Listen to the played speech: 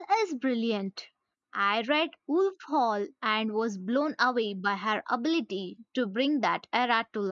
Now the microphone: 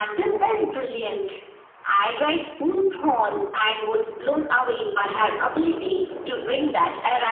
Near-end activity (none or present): none